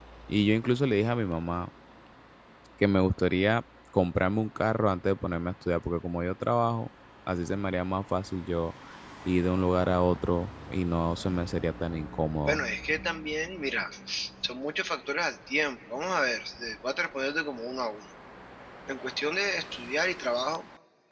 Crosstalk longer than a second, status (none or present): none